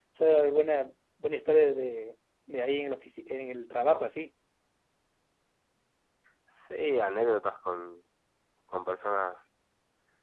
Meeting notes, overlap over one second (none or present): none